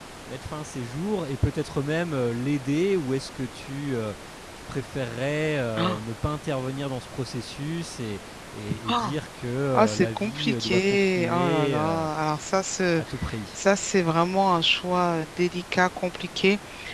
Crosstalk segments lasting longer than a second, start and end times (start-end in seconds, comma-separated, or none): 9.8-12.1